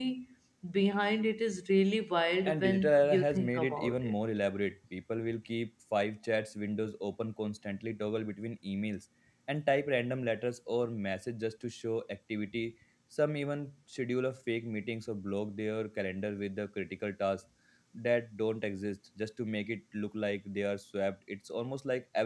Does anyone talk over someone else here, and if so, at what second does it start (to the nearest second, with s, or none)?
2 s